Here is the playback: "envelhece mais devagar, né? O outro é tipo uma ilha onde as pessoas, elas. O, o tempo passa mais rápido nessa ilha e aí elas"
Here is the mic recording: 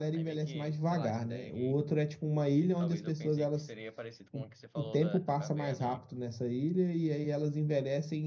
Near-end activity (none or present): present